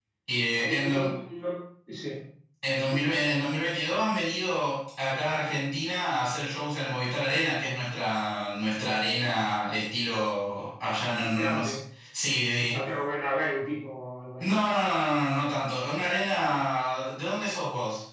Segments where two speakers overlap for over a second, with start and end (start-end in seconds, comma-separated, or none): none